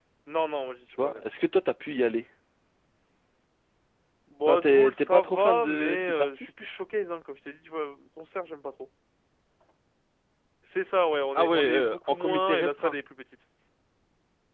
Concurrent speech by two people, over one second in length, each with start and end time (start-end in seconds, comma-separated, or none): 4.4-6.5, 11.4-12.9